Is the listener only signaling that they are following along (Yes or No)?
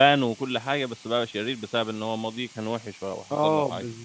No